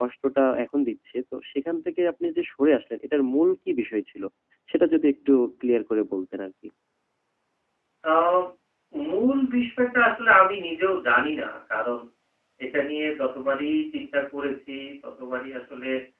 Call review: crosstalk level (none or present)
none